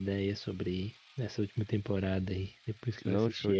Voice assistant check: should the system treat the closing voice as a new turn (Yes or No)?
Yes